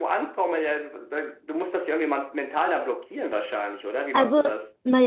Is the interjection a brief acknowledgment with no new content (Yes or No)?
No